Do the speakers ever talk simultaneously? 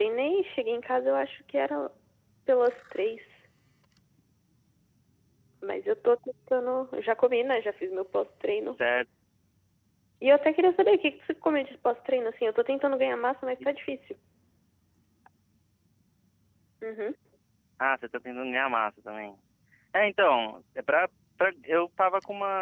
No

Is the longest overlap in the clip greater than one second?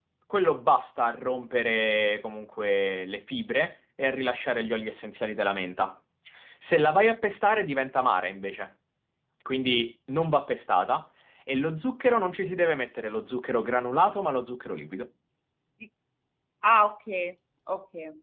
No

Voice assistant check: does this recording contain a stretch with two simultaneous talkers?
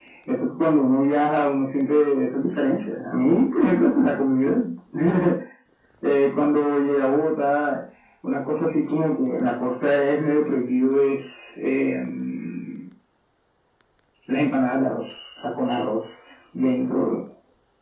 No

